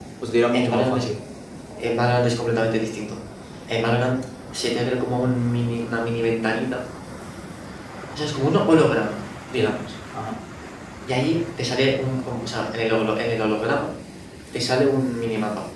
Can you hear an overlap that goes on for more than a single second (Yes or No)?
No